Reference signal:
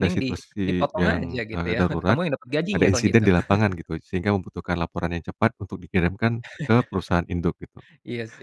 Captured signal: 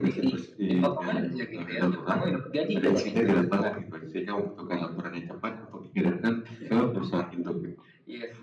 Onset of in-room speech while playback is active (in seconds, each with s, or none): none